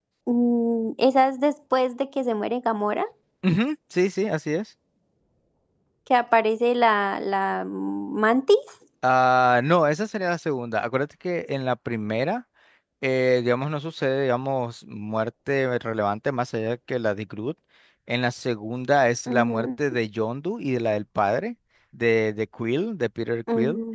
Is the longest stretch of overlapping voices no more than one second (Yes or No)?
Yes